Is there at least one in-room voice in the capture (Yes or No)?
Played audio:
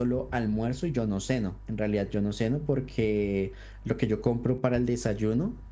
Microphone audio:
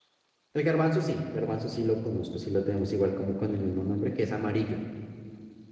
Yes